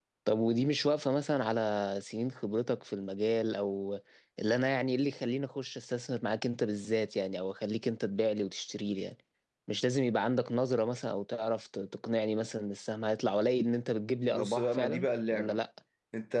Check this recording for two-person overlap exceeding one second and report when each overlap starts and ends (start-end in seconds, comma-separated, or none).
14.3-15.6